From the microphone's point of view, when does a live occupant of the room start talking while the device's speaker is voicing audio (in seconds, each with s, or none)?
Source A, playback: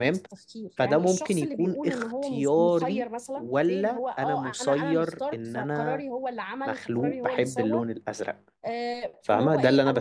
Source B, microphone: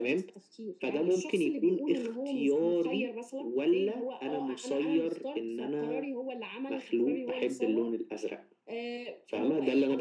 none